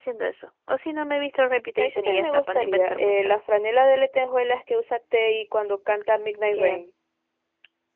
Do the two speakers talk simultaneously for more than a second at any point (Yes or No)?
Yes